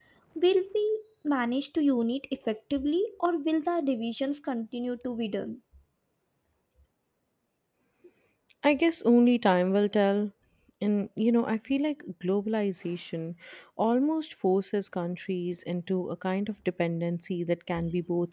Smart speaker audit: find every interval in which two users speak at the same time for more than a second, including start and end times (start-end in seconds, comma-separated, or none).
none